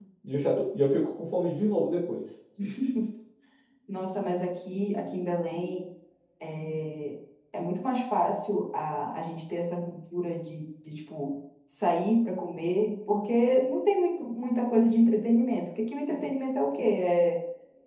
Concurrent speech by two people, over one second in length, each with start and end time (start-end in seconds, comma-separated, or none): none